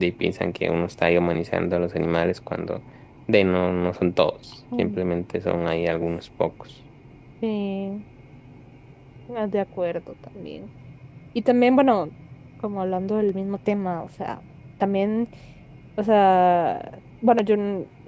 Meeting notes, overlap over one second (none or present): none